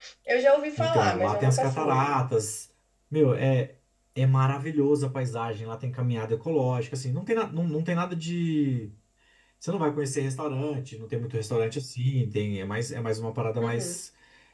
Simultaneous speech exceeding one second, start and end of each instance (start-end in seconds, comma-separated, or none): 0.8-2.1